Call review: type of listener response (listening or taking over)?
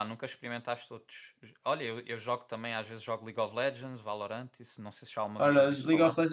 taking over